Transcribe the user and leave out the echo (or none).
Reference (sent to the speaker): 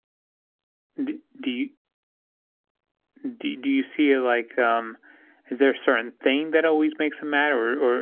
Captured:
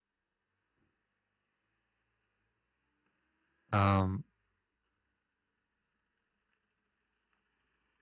um,